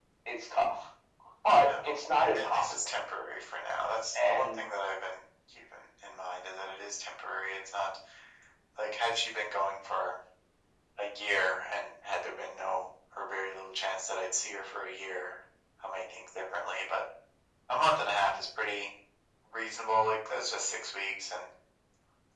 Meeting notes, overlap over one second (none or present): present